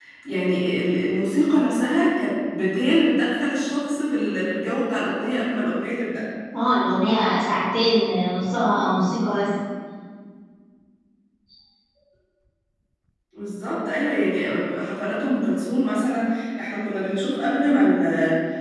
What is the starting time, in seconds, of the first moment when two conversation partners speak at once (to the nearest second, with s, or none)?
none